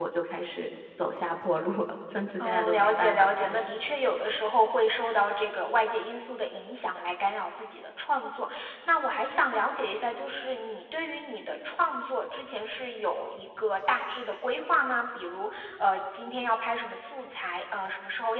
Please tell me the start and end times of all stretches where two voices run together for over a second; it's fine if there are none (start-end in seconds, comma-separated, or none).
2.4-3.6